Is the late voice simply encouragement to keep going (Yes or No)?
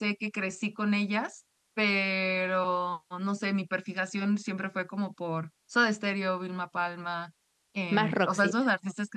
Yes